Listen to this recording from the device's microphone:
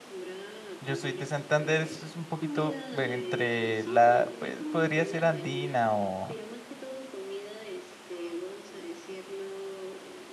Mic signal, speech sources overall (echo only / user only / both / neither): both